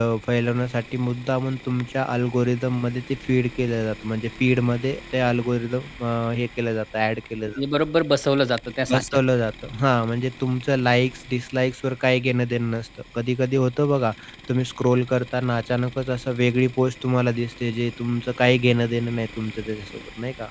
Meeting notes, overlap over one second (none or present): none